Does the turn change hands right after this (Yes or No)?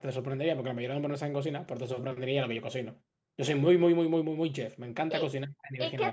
Yes